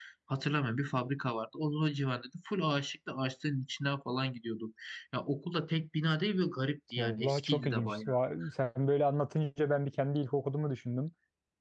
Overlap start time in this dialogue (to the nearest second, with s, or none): 7 s